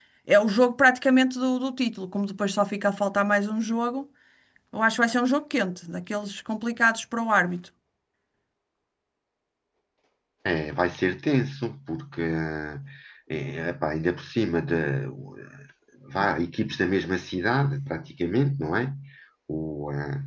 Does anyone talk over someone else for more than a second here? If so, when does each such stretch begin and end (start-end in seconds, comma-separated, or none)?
none